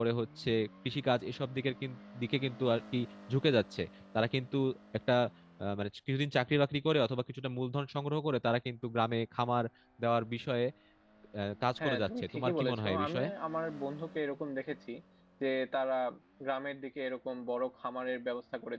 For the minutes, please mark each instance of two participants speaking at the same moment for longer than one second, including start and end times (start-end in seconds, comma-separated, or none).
11.8-13.3